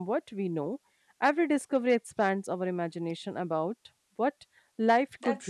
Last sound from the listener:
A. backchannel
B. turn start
B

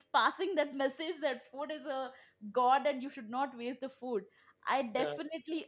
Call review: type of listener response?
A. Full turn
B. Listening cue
B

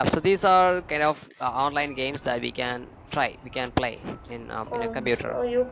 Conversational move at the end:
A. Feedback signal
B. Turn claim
B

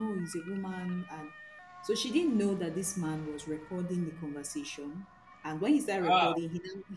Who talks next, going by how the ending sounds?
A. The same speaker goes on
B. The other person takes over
A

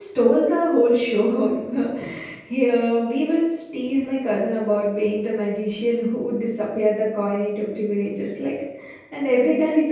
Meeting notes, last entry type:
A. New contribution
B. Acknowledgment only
B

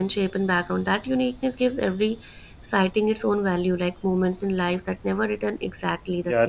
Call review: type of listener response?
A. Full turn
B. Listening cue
A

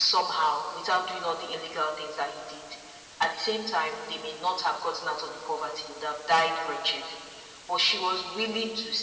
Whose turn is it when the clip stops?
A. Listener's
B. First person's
B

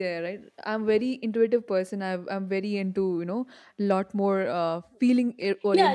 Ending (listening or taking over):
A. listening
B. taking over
B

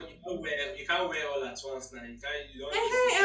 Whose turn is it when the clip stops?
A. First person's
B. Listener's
B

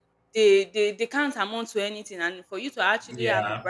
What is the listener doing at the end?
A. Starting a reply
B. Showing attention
B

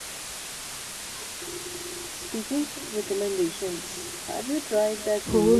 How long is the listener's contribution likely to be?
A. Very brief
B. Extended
B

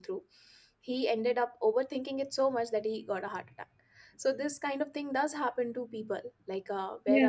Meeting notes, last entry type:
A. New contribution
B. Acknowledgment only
B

